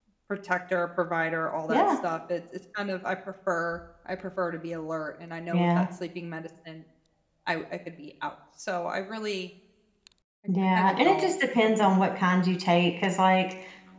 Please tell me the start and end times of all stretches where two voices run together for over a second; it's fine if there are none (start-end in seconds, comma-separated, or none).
10.8-12.2